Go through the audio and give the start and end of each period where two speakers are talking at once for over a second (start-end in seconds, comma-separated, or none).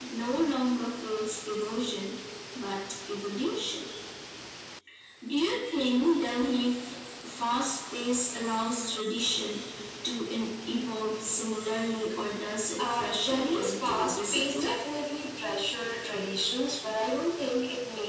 12.8-14.7